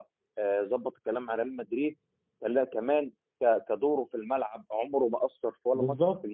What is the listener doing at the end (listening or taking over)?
taking over